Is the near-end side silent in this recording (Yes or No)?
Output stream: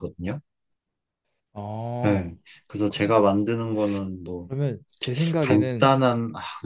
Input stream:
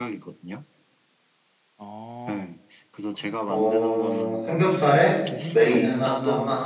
No